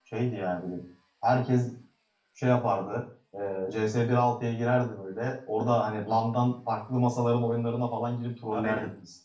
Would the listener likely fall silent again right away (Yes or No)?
No